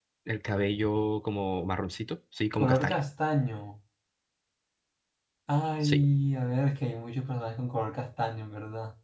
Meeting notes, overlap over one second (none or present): none